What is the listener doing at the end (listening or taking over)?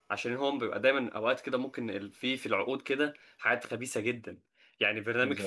listening